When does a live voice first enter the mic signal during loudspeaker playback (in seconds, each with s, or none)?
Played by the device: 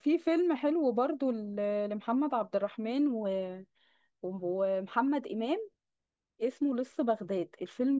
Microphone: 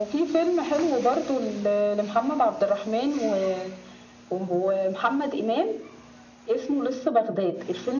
none